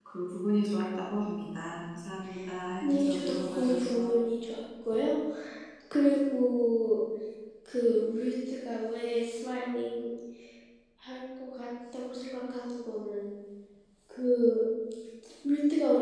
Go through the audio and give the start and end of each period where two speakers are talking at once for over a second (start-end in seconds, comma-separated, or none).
2.8-4.1